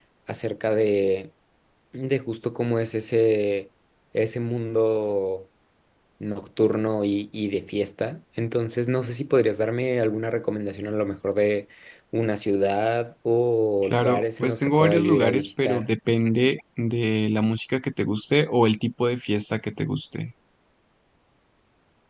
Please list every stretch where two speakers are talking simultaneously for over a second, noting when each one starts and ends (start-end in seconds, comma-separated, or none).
13.8-15.8